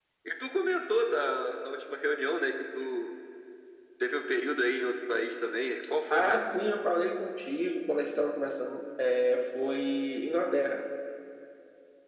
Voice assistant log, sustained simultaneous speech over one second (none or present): none